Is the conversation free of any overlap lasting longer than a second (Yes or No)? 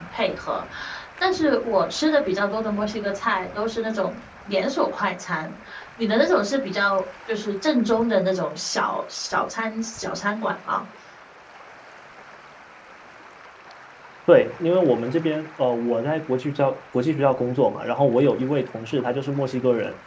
Yes